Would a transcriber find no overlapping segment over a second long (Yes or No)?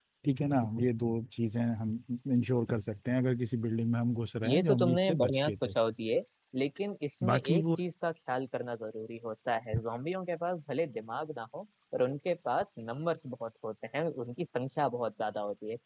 No